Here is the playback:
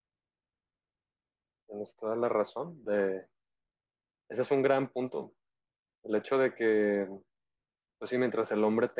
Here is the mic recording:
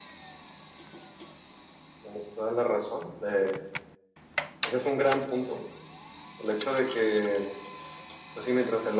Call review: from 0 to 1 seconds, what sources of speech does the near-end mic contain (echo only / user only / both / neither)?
neither